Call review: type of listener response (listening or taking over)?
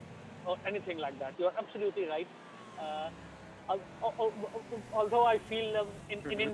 listening